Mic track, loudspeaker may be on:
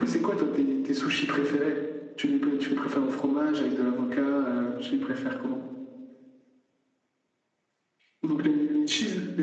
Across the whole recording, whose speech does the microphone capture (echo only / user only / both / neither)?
echo only